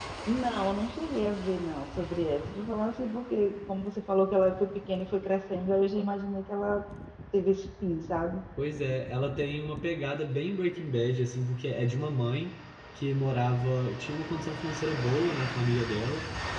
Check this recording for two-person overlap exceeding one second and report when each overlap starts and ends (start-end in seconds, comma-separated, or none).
none